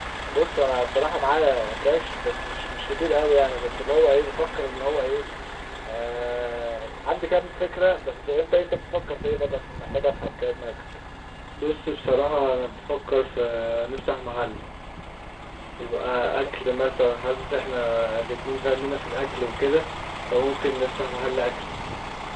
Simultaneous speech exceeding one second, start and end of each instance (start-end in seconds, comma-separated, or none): none